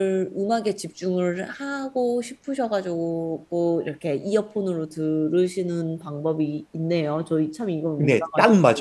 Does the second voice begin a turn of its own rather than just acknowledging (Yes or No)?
Yes